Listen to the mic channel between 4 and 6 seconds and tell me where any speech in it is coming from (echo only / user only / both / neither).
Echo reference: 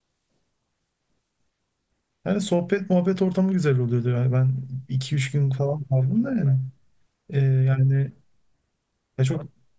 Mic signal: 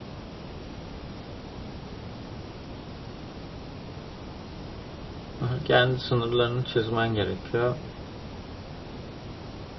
user only